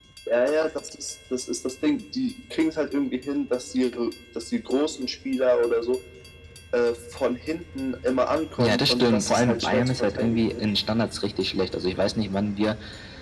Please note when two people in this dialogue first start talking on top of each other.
8.6 s

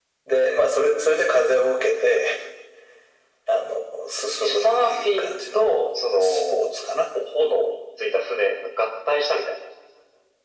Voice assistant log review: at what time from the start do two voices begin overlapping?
4.4 s

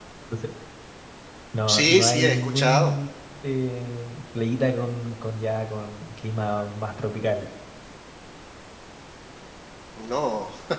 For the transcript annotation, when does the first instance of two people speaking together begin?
1.7 s

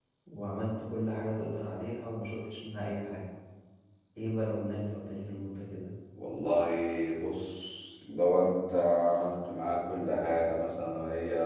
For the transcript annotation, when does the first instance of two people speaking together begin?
none

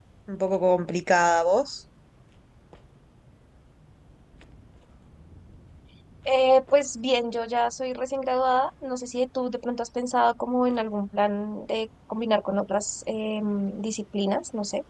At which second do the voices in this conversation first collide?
none

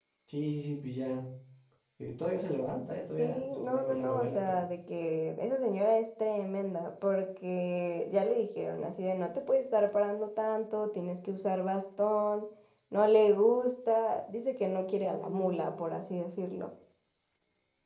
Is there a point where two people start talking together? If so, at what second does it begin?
3.1 s

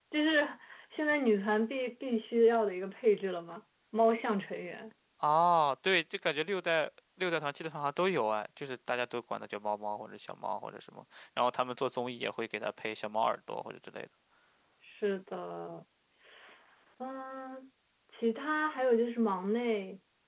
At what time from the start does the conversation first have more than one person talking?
none

